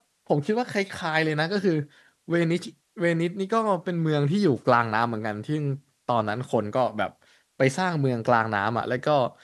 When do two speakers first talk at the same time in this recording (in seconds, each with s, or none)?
none